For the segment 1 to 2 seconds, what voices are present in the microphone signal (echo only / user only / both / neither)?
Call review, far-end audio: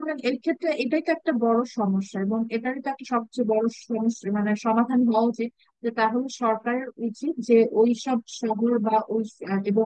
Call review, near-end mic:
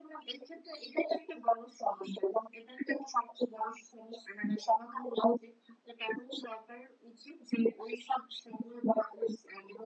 echo only